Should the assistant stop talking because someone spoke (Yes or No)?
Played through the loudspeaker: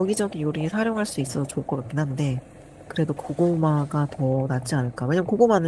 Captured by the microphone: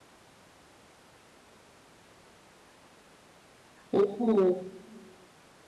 Yes